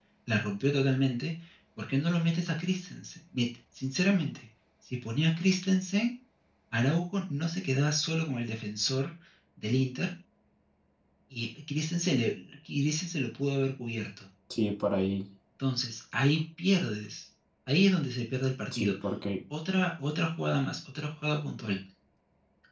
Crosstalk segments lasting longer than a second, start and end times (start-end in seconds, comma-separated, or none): none